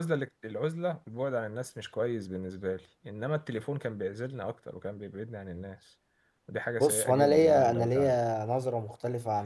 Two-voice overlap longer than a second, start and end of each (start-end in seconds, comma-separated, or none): 6.8-8.2